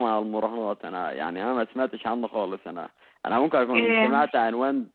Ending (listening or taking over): listening